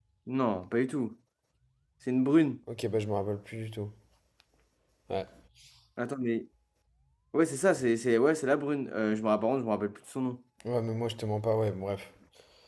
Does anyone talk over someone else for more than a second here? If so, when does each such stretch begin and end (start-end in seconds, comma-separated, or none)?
none